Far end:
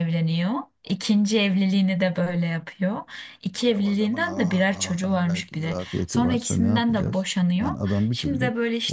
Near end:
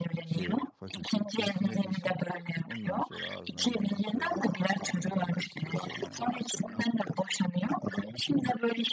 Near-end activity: present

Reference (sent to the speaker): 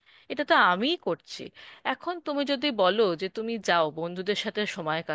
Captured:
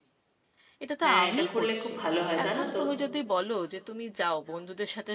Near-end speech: present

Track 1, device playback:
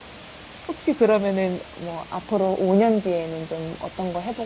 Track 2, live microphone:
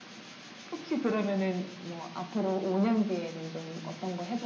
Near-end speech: none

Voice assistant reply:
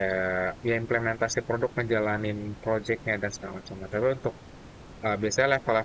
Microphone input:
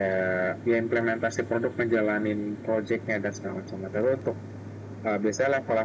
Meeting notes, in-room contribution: none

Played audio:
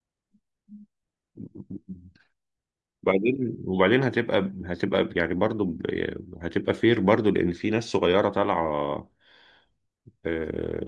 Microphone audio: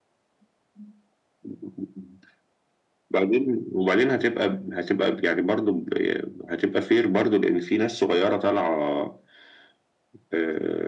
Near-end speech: none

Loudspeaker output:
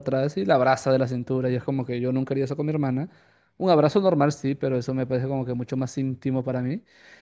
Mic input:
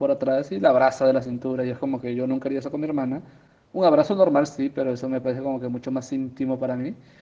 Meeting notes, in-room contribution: none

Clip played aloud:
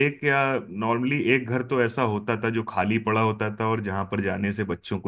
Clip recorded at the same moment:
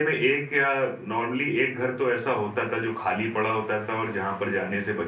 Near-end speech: none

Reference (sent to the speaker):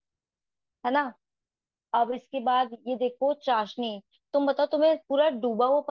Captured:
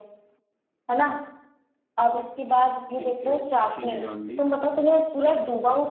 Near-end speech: present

